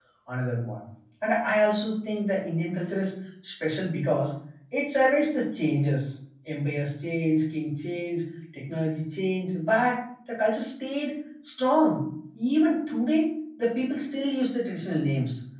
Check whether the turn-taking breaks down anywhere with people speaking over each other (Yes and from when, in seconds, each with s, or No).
No